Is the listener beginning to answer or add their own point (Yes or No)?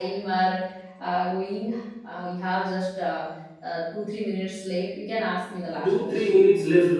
Yes